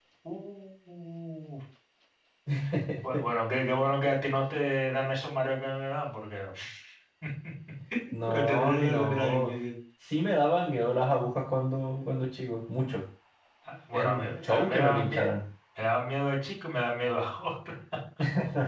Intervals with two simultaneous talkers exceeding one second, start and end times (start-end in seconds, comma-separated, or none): 8.3-9.5, 13.9-15.3